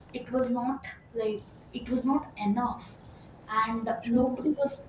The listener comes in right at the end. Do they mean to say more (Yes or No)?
No